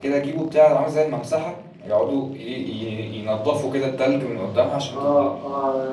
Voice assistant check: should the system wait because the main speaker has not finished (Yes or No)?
No